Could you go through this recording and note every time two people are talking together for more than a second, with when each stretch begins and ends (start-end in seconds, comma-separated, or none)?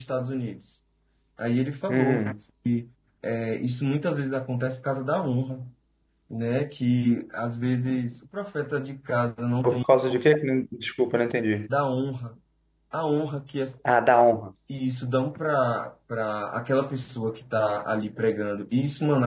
none